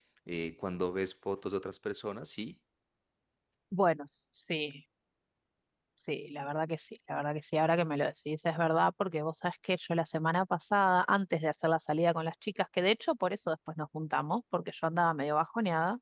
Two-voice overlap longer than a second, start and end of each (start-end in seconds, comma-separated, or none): none